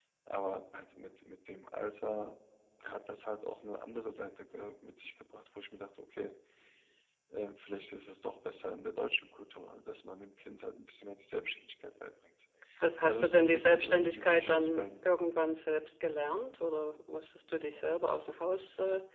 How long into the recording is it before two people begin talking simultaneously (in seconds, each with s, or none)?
13.0 s